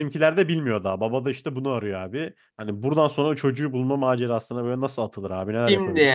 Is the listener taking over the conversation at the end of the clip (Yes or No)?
Yes